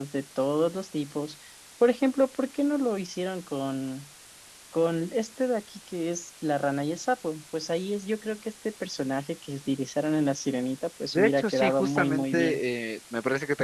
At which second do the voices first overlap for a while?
11.1 s

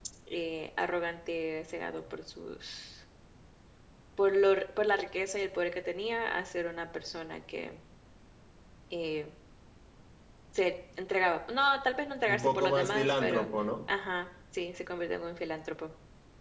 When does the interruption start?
12.3 s

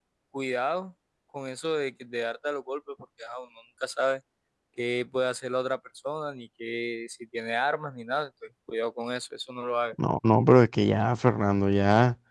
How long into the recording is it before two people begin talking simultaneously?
none

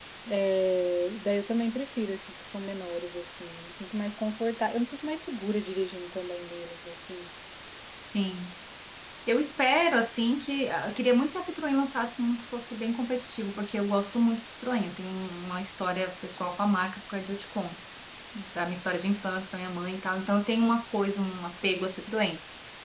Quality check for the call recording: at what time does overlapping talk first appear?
none

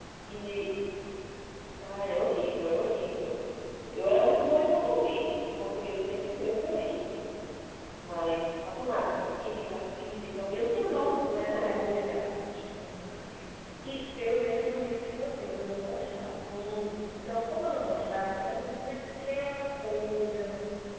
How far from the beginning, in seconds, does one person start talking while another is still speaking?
10.5 s

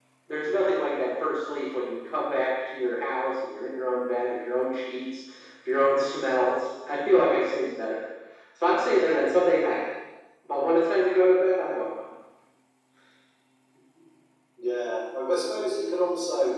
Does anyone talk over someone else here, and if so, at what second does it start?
none

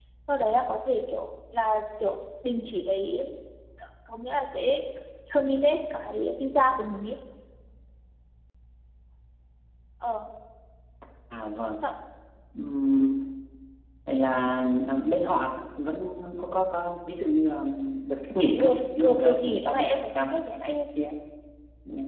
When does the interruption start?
18.6 s

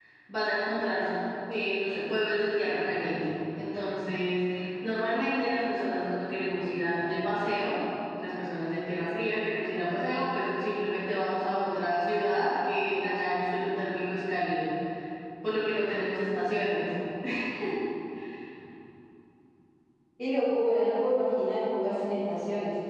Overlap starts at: none

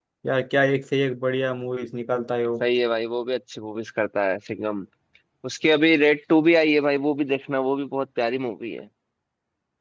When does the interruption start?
none

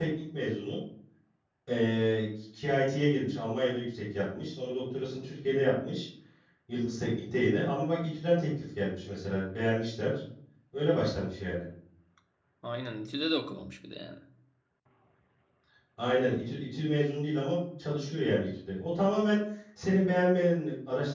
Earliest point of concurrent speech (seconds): none

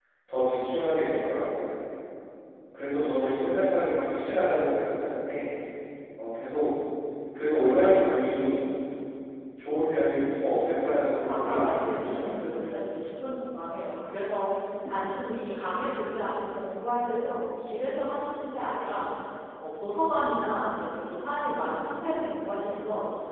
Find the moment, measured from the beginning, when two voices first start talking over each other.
10.9 s

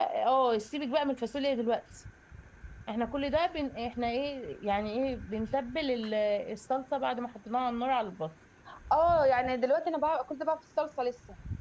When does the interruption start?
none

